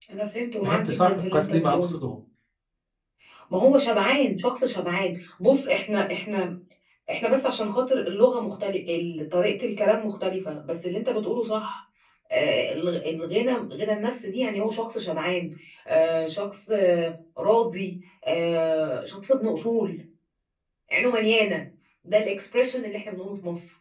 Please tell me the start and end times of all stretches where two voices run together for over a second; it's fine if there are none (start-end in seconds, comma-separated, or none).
0.6-2.0